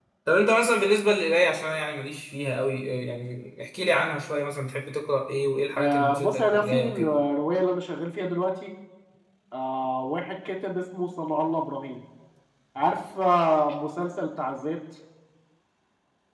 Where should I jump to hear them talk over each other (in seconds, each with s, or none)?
5.8 s